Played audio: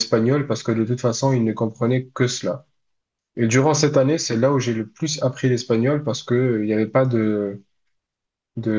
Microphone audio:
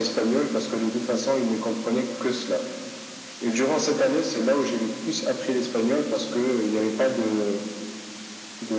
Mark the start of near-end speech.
none

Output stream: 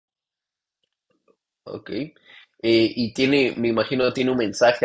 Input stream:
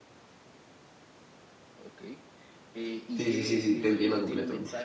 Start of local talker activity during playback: 3.2 s

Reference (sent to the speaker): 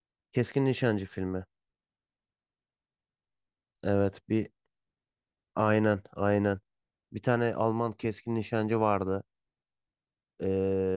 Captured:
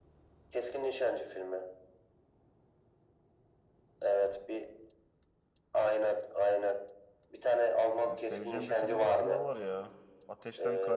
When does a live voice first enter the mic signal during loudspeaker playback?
8.0 s

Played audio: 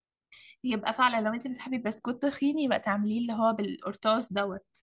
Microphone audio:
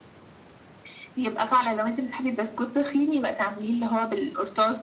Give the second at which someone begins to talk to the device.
none

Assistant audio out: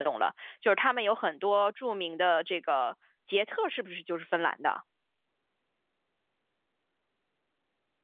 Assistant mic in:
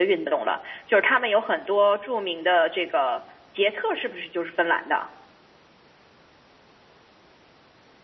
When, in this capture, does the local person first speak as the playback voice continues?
none

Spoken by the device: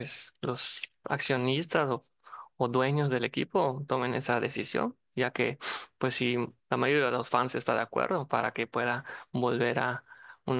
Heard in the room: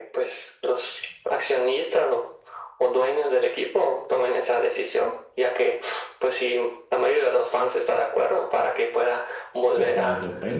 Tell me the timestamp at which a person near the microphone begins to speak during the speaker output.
9.7 s

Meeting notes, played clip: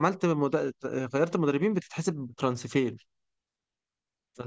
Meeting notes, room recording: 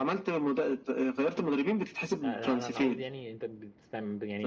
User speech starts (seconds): 2.2 s

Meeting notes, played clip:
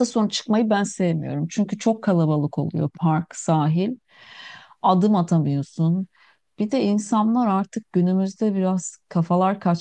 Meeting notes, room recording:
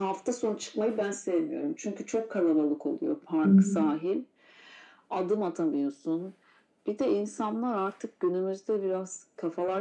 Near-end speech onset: 3.4 s

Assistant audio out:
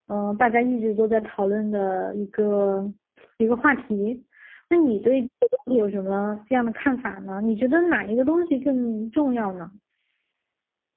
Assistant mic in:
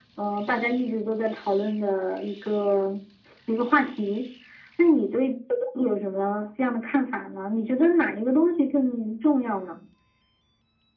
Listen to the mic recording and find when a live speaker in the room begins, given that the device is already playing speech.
none

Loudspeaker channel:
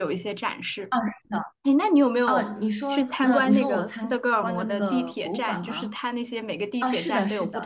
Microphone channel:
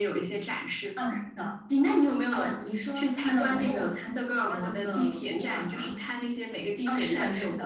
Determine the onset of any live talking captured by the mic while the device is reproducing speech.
none

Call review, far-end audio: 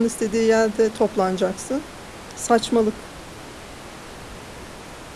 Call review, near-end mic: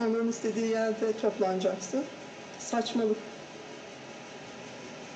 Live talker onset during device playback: none

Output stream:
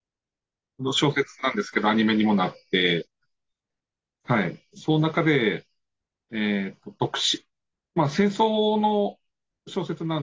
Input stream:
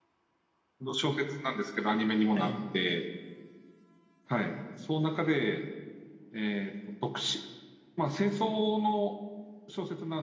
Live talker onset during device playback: 2.3 s

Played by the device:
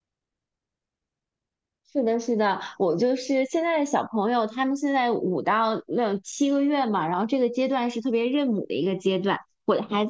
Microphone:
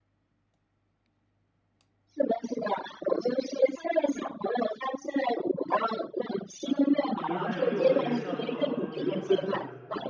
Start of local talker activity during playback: 6.6 s

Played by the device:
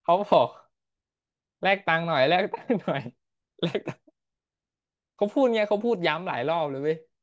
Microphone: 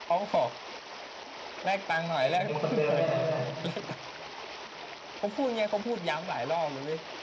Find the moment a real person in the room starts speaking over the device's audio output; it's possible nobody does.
2.2 s

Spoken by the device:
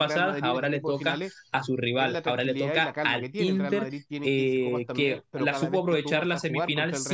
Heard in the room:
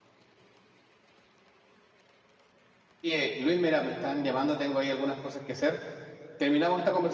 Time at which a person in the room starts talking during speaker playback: 3.0 s

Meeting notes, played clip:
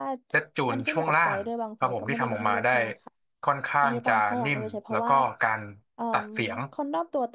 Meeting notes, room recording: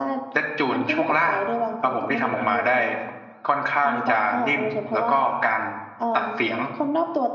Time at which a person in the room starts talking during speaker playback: none

